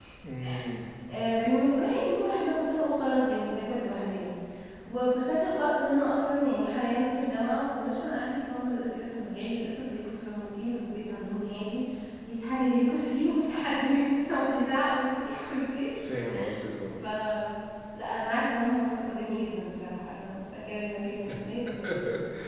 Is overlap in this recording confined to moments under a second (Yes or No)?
Yes